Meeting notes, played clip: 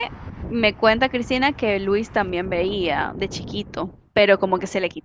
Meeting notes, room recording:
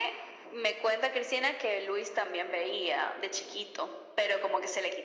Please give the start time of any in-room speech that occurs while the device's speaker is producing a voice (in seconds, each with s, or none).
none